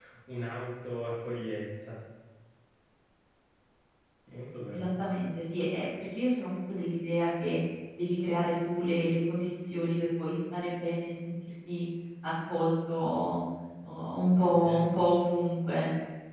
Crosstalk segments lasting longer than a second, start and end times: none

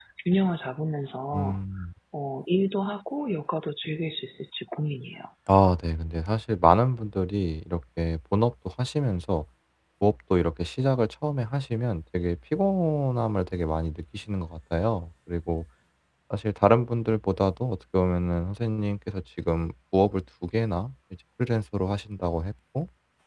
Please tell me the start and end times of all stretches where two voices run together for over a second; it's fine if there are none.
none

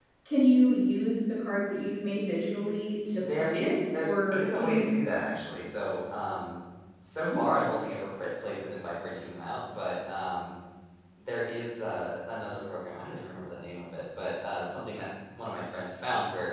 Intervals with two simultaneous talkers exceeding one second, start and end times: 3.2-4.9

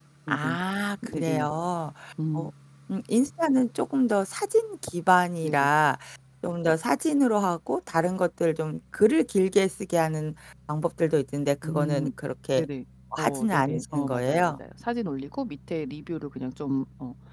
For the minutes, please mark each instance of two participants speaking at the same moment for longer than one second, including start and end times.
13.2-14.5

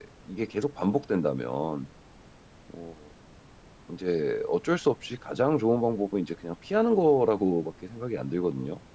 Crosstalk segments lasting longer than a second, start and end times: none

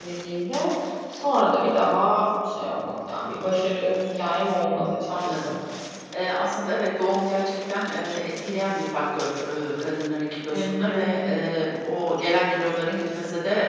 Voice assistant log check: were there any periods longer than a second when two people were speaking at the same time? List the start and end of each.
none

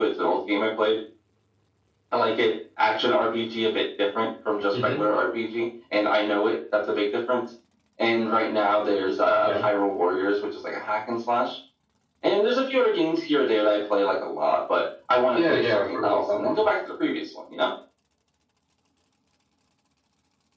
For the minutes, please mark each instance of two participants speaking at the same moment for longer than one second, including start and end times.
15.3-16.7

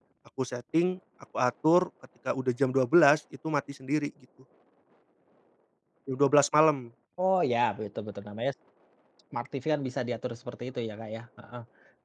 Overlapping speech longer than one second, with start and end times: none

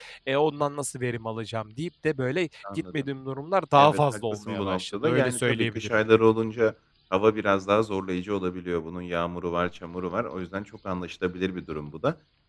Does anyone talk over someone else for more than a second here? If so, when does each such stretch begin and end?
3.8-6.0

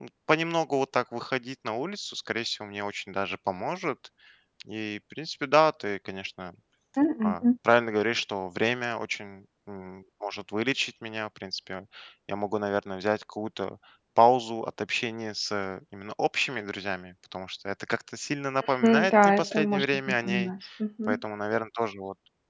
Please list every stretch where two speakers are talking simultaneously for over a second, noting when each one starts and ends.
18.8-20.5

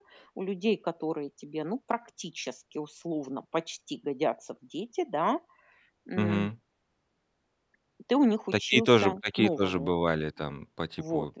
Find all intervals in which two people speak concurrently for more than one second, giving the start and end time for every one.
8.5-9.9

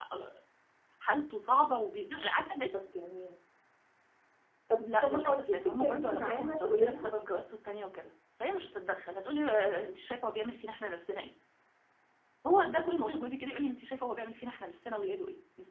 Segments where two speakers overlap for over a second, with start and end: 4.8-7.1

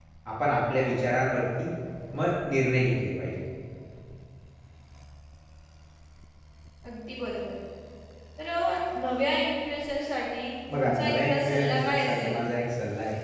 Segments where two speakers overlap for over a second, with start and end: 10.7-12.4

